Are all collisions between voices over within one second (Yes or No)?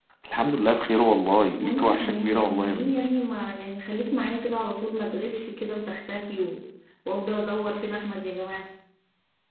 No